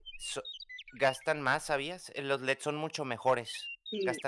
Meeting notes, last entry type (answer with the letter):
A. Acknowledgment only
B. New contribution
B